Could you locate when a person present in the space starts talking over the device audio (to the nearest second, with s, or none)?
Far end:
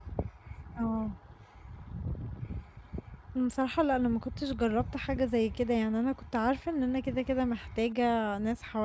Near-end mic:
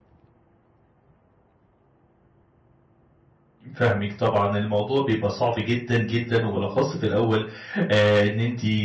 4 s